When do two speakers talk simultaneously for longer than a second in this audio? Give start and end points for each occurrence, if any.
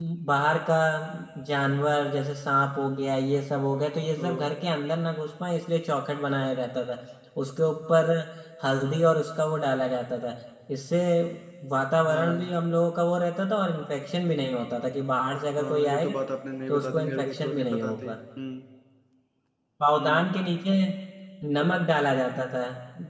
16.7-18.2

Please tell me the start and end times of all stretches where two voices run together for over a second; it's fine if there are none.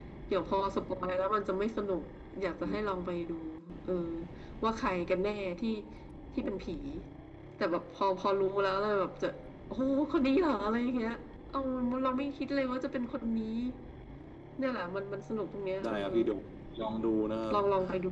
none

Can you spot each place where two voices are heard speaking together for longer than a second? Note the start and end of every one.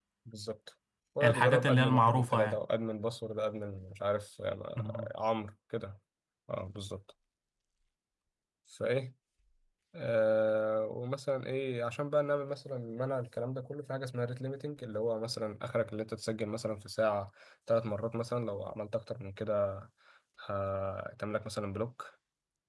1.2-2.6

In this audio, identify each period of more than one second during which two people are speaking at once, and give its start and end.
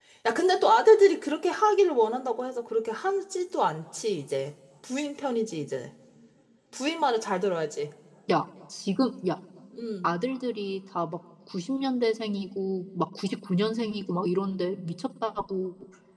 none

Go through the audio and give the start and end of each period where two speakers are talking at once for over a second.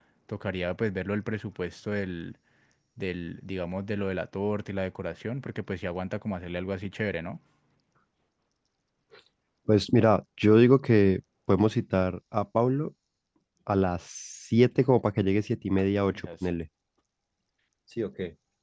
none

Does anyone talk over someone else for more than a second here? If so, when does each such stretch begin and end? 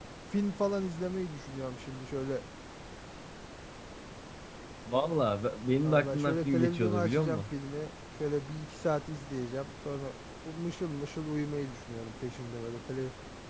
5.8-7.4

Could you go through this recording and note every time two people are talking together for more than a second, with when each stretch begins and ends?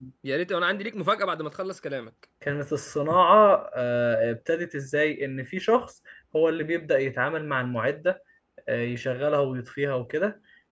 none

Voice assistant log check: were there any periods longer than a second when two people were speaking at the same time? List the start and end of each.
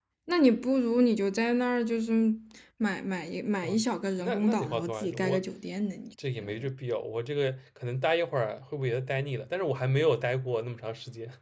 4.2-5.4

